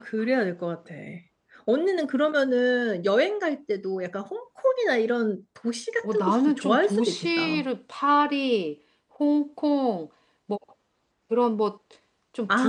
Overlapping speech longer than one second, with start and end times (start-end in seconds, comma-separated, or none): 6.0-7.7